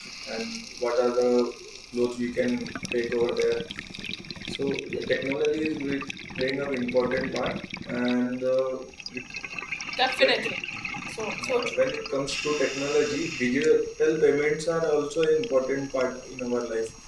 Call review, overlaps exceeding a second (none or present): none